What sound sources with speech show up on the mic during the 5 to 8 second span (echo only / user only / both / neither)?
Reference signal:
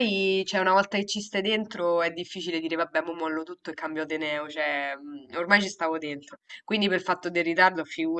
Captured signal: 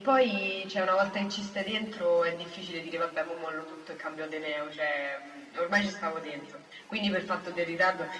echo only